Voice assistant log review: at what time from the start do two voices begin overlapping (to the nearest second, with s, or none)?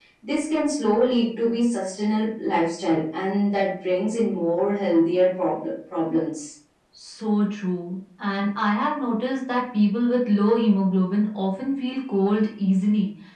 none